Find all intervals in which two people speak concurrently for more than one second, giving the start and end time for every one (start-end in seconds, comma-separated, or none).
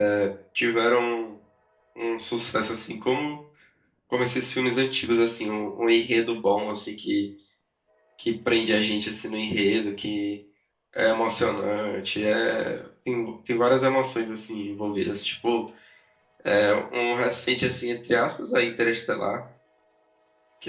none